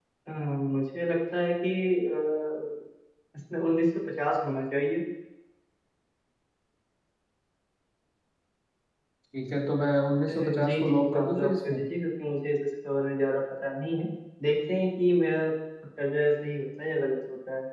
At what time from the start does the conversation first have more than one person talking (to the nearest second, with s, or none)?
10 s